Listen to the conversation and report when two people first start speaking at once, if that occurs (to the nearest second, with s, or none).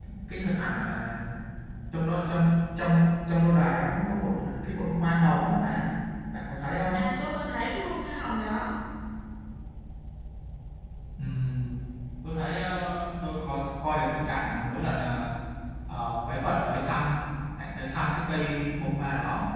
none